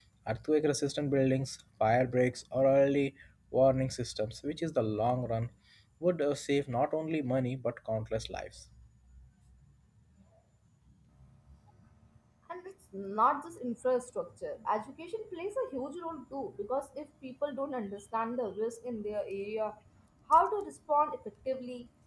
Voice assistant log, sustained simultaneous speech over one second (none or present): none